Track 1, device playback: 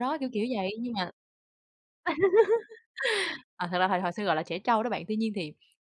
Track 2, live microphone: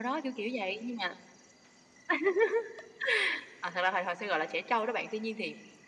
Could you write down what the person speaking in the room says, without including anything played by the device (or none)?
none